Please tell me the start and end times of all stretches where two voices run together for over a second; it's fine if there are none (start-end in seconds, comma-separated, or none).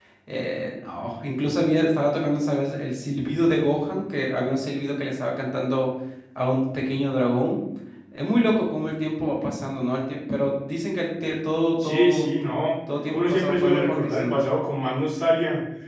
13.1-14.4